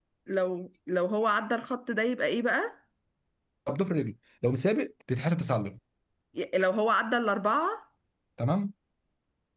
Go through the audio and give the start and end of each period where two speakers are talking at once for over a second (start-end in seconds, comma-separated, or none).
none